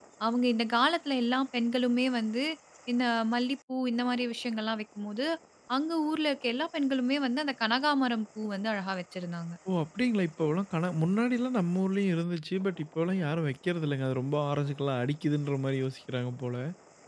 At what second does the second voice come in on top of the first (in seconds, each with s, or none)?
none